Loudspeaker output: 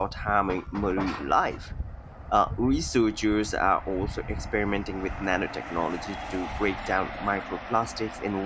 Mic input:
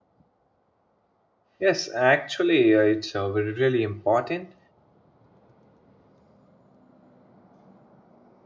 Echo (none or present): none